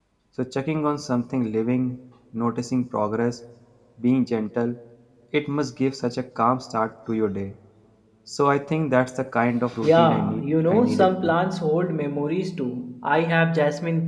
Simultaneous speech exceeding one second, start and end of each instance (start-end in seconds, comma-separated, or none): 9.8-11.3